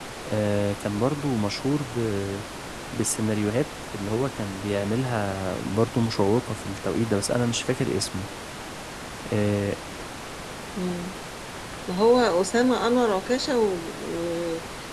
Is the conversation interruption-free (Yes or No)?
Yes